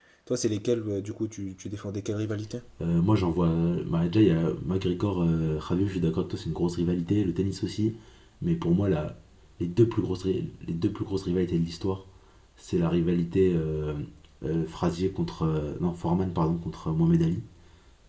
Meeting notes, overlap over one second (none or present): none